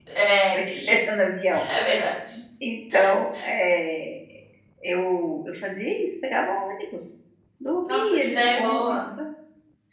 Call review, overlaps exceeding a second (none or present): present